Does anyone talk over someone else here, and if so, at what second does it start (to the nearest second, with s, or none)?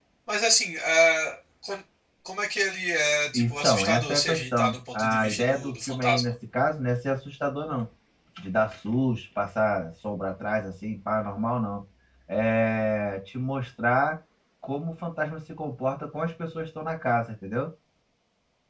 3 s